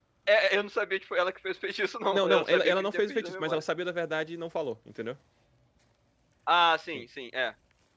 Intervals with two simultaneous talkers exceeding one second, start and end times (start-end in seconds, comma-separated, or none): 2.1-3.6